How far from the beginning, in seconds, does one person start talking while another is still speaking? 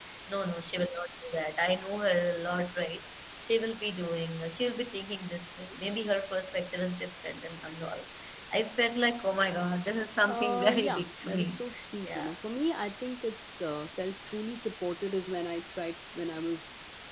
10 s

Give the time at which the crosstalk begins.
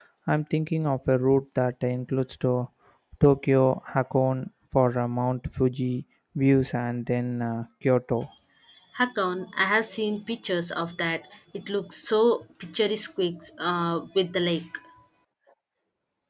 none

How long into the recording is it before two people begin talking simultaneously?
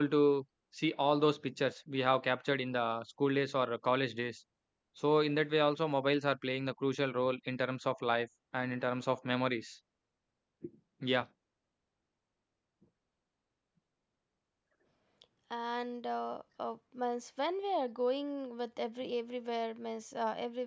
none

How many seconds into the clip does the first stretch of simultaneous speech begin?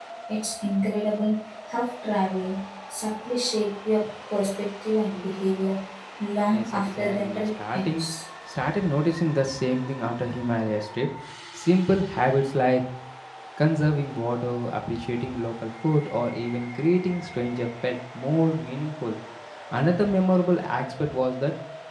6 s

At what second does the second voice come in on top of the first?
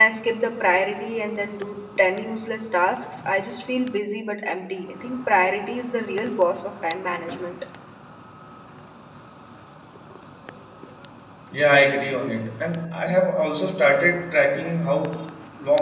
none

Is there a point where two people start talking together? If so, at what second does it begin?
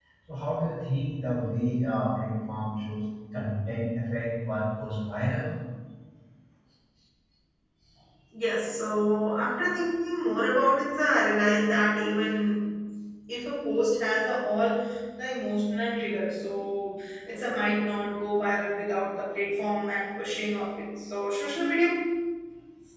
none

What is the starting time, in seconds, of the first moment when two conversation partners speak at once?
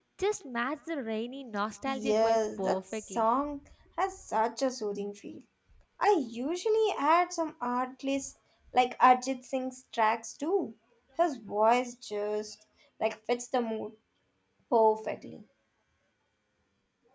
2 s

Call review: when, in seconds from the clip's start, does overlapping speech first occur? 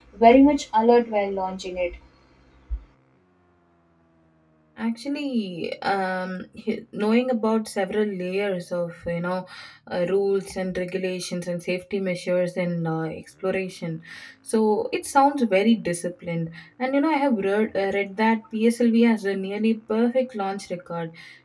none

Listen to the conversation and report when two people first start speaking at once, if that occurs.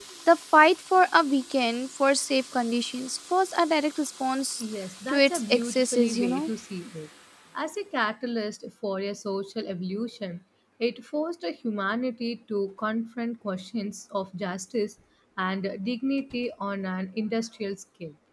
5 s

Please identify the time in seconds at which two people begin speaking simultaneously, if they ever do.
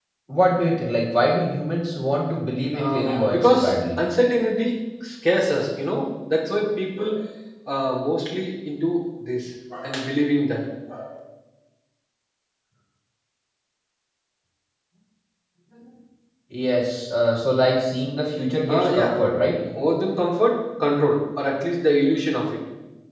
3 s

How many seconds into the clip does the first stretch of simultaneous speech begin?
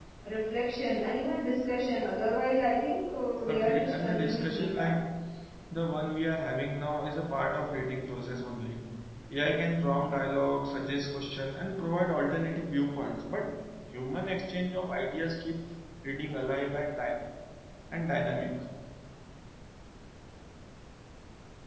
3 s

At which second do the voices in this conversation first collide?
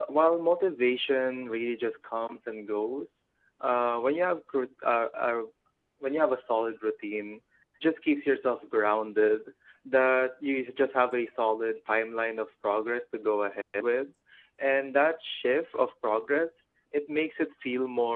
none

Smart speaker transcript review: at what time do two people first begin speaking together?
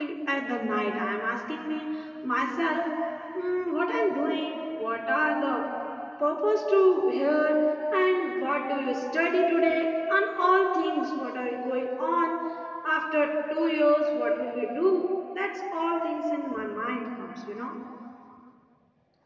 none

